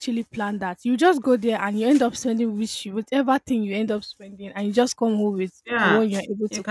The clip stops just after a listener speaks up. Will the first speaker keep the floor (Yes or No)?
No